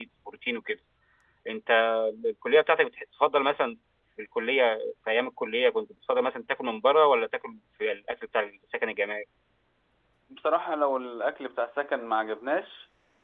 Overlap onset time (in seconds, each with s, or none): none